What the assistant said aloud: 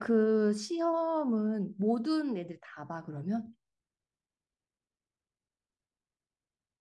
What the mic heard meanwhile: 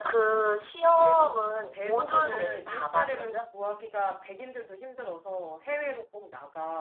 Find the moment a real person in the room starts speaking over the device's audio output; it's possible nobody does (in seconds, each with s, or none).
0.9 s